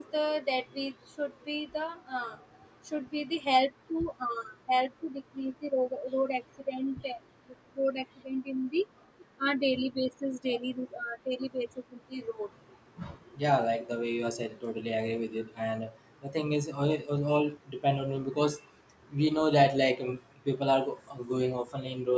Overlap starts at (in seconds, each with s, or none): none